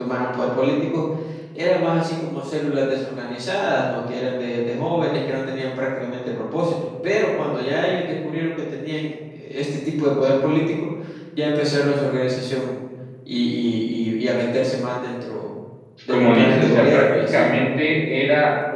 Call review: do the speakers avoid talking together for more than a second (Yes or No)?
No